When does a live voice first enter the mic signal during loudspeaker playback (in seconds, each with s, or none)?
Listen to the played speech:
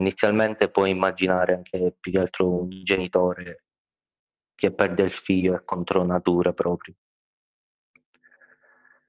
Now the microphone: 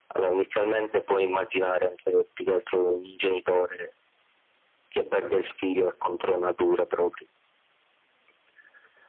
none